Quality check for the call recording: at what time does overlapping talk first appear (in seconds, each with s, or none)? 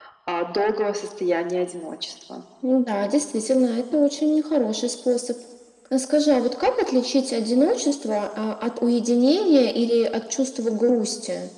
none